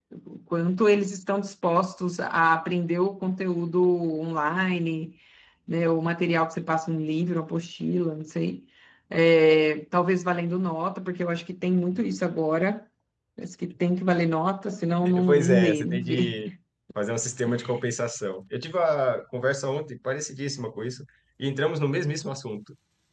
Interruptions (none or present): present